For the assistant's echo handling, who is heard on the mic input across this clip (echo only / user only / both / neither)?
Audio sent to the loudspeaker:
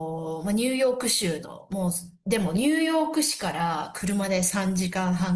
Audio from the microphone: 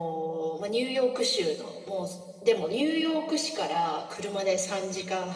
echo only